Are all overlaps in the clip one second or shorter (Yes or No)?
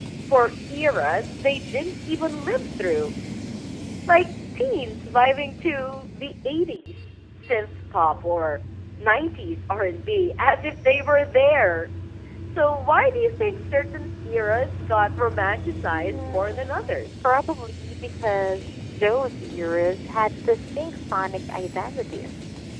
No